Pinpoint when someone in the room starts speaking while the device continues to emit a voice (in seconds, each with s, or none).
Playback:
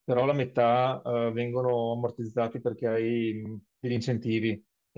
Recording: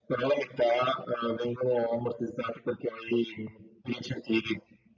none